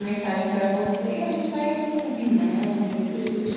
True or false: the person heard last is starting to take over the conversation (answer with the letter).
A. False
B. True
B